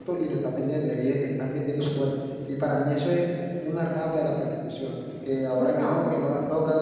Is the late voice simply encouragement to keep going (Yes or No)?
Yes